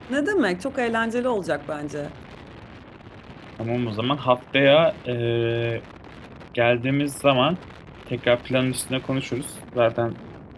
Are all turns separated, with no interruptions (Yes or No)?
Yes